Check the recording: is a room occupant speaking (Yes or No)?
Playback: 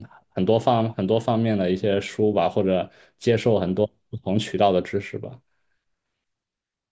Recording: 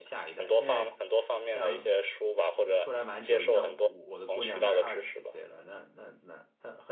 Yes